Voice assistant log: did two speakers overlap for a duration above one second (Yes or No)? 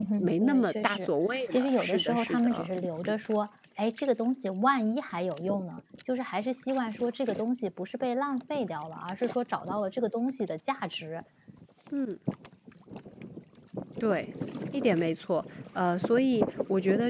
Yes